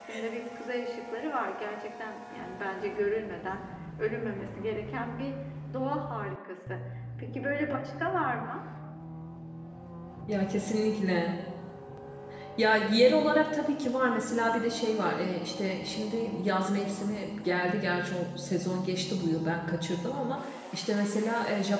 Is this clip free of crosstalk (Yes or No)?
Yes